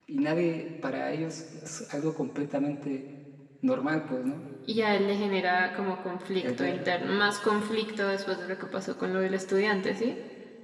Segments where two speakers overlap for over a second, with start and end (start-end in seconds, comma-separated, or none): none